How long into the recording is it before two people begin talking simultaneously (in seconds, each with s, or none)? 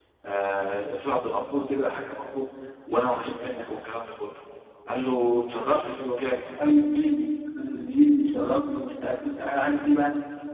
none